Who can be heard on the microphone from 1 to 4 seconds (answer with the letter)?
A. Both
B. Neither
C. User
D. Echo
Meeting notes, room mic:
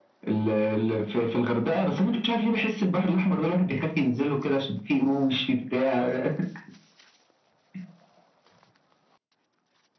D